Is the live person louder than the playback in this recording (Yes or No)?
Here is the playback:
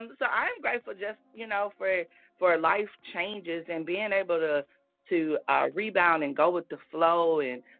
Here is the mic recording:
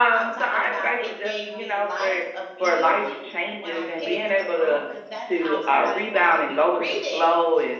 No